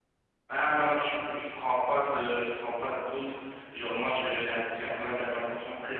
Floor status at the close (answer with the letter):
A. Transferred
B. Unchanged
B